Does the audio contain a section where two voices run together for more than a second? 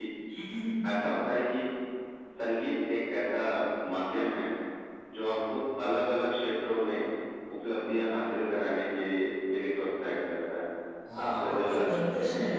Yes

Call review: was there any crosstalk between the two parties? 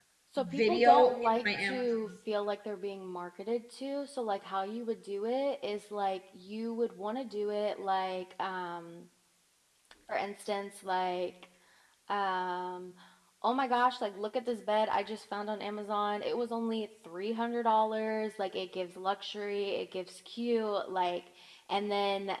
Yes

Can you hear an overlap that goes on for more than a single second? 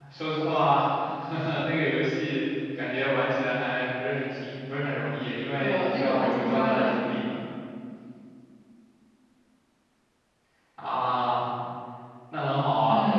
Yes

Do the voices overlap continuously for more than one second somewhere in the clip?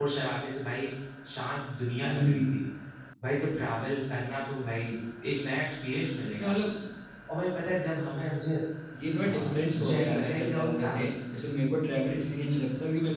Yes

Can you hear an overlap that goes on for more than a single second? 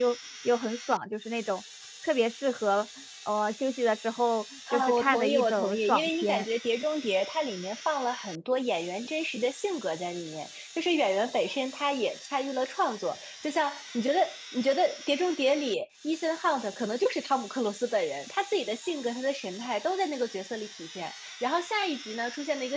Yes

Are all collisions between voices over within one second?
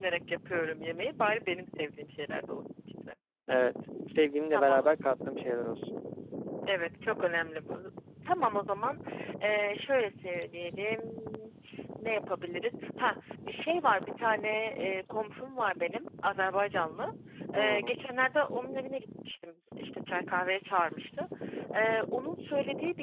Yes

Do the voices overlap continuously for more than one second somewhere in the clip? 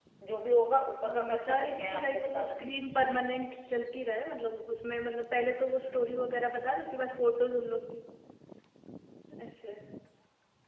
Yes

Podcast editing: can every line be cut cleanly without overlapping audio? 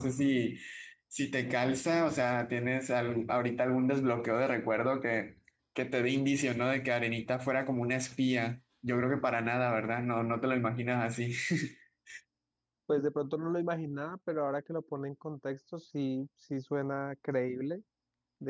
Yes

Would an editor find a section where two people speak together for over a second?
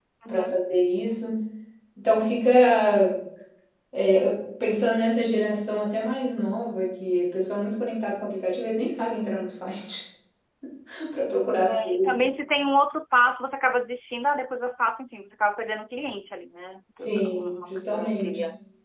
Yes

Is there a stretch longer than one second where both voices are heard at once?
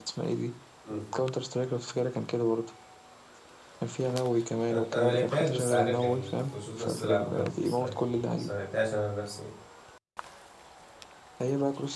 Yes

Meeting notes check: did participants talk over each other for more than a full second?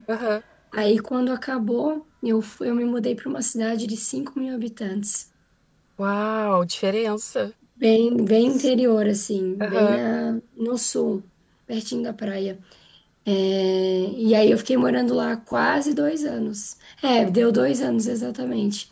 No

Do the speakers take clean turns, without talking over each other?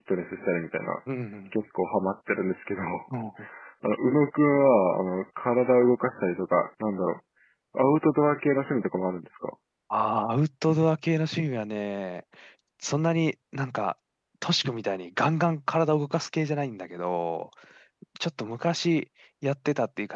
Yes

